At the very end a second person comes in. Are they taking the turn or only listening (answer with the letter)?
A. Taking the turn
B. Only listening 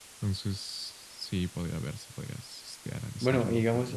A